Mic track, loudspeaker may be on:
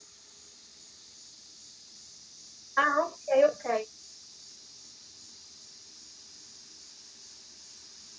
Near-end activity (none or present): present